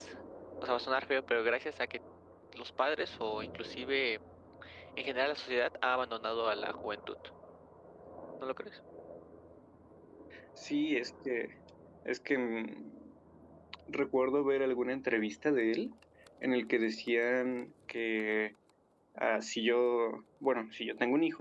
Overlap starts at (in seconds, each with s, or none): none